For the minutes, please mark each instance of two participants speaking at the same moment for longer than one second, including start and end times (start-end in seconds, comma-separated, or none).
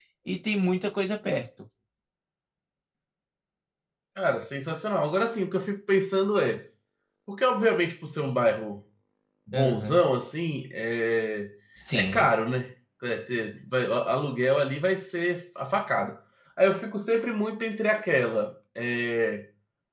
none